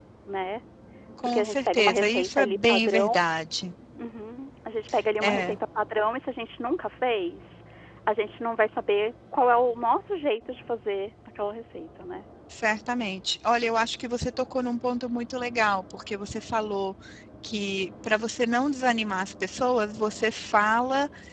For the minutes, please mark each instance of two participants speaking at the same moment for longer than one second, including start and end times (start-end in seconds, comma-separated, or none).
1.2-3.1